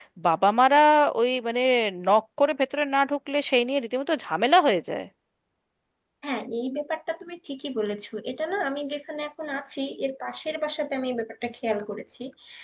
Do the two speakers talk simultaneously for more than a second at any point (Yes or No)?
No